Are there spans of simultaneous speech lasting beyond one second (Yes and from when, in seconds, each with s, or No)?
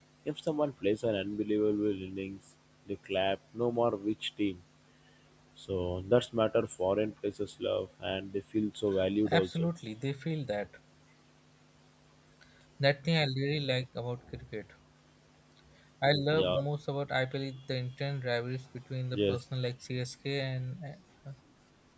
No